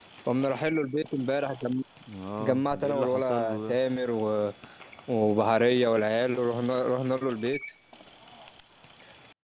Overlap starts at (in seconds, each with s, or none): 2.4 s